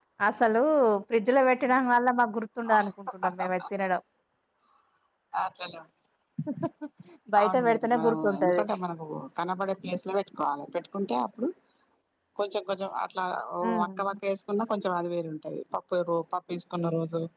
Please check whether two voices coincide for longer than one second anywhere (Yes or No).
Yes